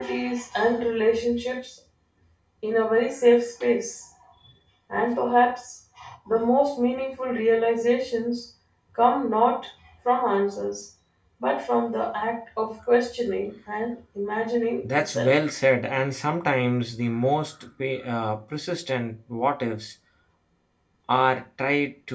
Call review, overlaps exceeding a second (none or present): none